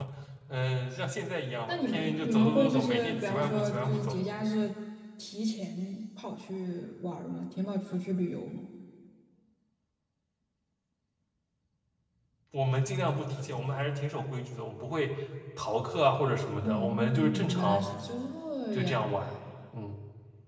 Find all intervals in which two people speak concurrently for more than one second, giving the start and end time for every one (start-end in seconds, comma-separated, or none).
1.7-4.2, 16.6-17.9